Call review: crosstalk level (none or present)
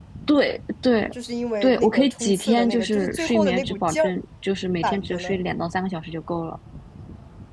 present